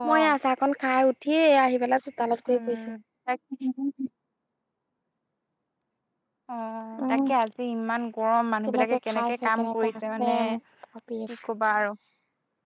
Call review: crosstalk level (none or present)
present